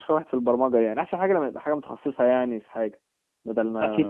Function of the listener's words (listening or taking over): taking over